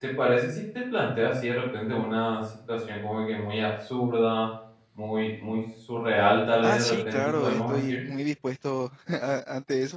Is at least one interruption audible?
Yes, from 6.6 s

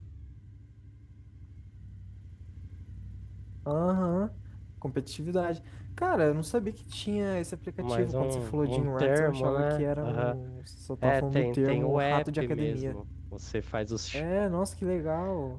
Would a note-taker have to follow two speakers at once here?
Yes, from 7.8 s

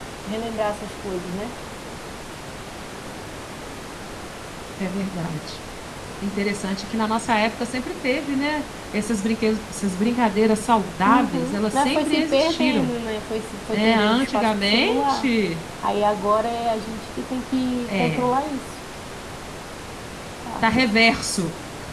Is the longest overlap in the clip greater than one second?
Yes, from 11.0 s

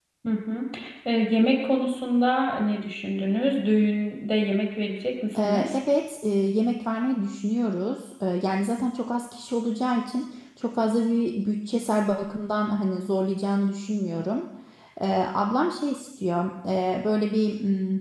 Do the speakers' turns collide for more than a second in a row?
No

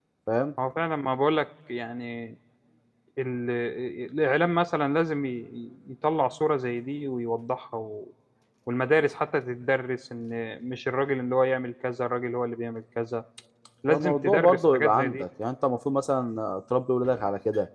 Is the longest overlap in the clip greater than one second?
Yes, from 13.9 s

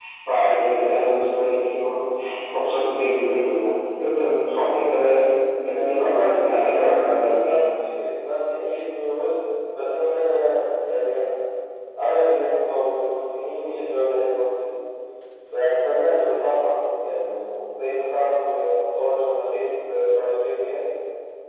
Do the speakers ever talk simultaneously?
Yes, from 5.8 s

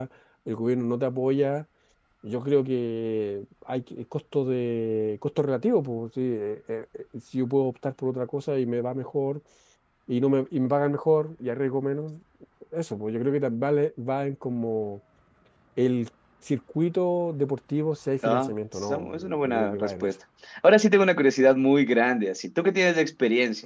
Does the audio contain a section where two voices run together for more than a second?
Yes, from 18.2 s

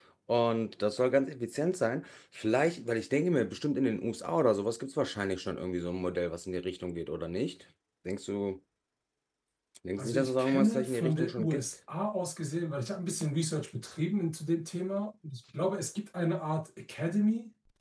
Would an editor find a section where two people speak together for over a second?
Yes, from 10.0 s

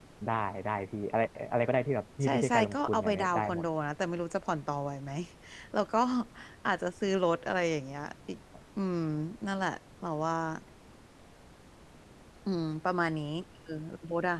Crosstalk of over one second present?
Yes, from 2.2 s

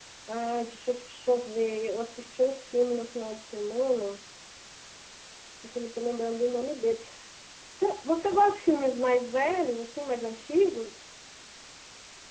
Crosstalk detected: No

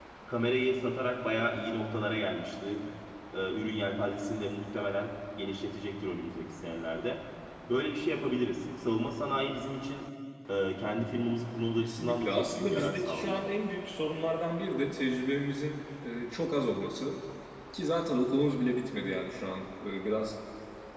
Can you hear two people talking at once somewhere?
Yes, from 11.8 s

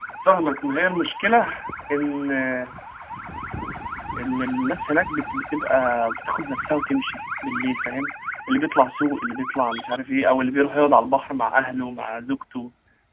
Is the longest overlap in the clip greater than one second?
No

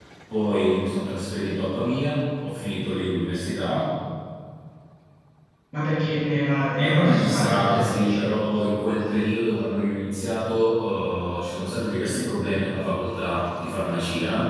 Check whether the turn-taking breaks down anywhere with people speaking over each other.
Yes, from 6.8 s

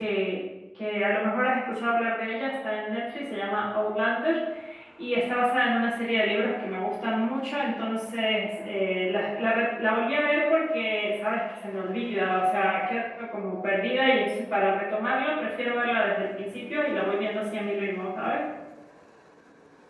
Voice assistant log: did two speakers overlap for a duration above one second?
No

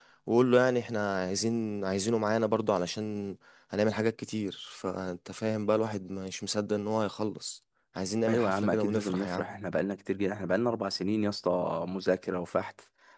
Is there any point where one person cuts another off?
Yes, from 8.3 s

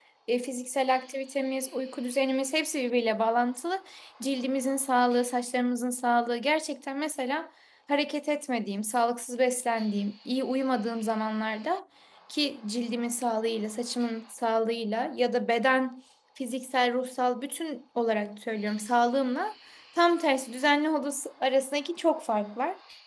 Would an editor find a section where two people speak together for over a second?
No

